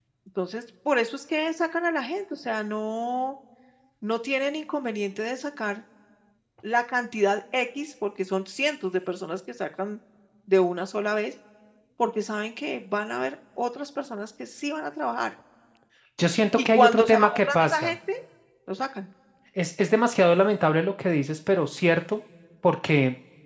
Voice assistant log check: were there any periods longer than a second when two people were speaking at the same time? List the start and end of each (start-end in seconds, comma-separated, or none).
16.6-17.9